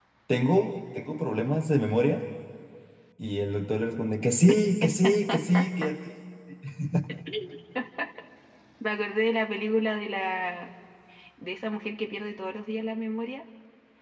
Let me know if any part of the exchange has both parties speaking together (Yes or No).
No